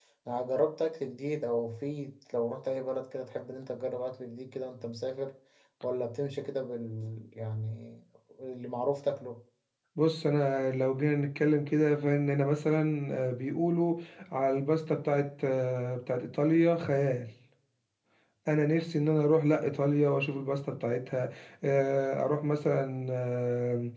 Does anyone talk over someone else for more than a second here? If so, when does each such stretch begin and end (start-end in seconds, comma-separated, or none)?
none